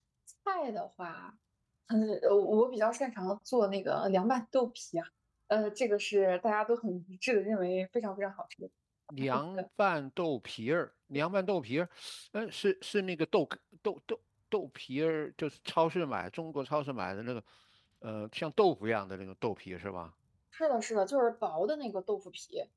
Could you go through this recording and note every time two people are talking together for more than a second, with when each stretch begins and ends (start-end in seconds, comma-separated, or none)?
none